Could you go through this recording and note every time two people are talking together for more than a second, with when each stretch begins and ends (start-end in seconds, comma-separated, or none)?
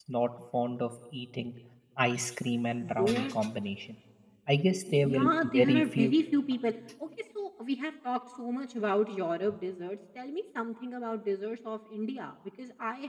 4.9-6.1